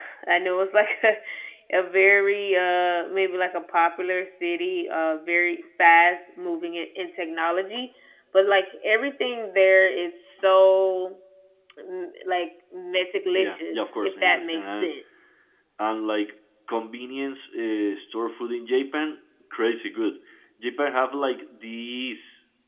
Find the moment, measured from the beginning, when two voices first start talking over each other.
13 s

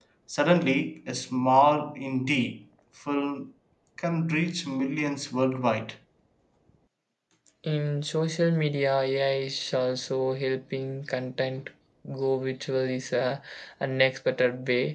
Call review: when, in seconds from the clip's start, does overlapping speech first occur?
none

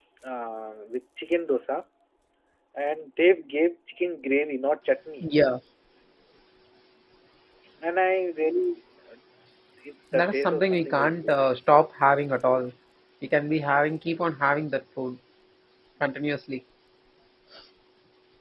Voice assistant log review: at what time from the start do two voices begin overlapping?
10 s

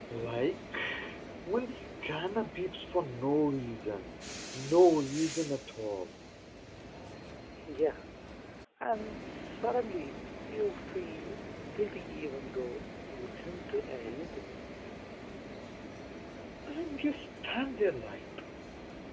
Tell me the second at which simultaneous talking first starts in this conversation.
none

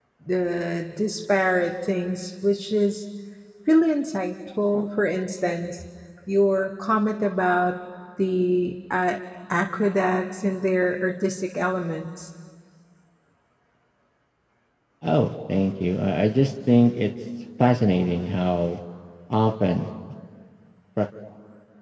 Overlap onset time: none

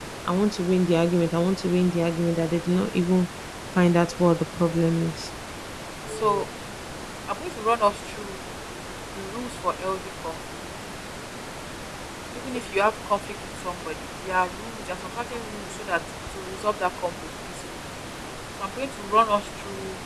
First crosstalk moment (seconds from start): none

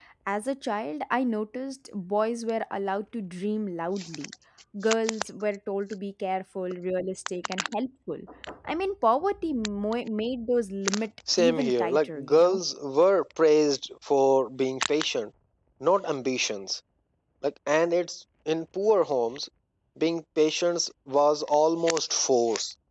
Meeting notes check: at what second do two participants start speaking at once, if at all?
11 s

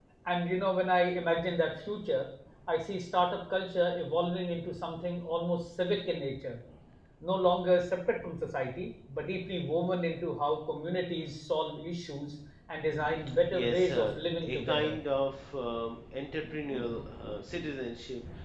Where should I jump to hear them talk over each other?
14 s

